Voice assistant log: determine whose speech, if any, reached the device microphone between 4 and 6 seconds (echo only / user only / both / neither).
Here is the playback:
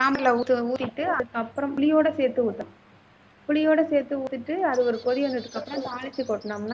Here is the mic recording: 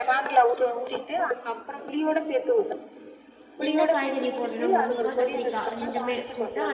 both